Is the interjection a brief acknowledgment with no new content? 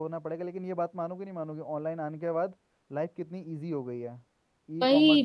No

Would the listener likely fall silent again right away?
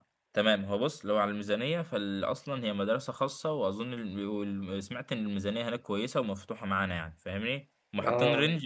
Yes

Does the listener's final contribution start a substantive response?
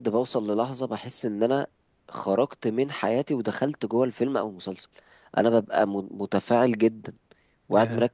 No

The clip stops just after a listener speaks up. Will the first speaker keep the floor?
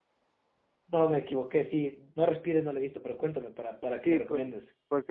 No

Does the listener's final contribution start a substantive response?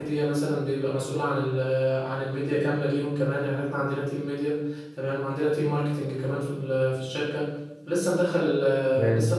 No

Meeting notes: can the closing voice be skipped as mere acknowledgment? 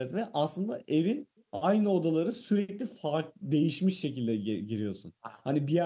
Yes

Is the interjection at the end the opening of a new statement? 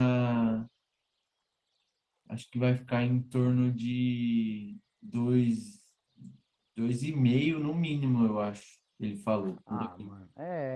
Yes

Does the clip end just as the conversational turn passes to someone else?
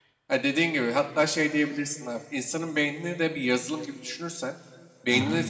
No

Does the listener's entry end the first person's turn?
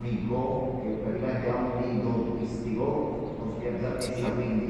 No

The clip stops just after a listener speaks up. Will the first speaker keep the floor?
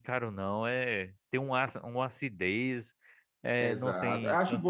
No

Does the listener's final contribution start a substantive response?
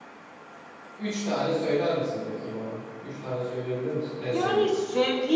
Yes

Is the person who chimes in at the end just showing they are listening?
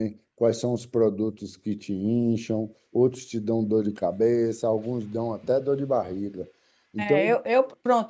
No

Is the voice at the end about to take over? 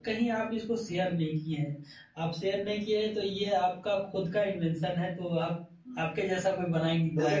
Yes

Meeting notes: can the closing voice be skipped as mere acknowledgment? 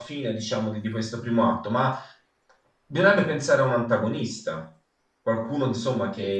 No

